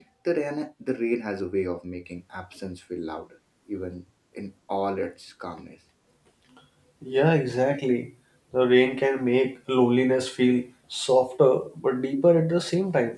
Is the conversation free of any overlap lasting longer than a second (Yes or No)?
Yes